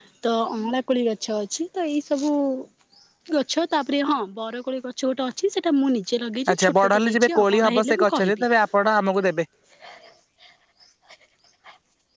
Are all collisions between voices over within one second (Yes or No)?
No